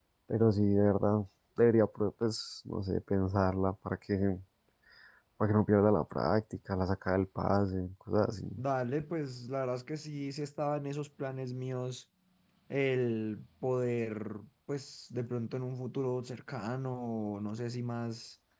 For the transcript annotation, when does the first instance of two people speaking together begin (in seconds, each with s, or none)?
none